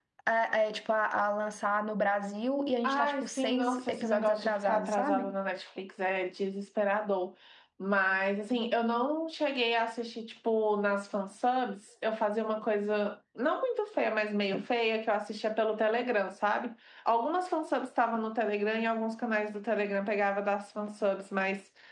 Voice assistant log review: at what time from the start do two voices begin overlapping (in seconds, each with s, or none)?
2.8 s